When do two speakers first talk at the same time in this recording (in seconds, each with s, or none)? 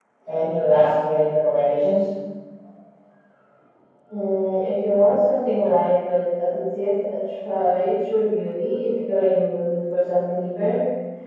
none